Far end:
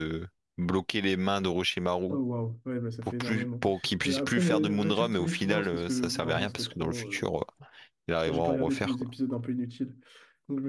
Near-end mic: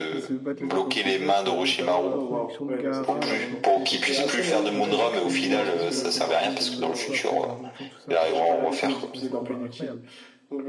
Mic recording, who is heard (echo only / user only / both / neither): both